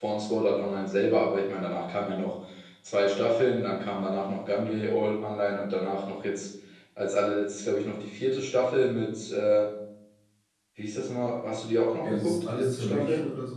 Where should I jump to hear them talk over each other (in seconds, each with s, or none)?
12.0 s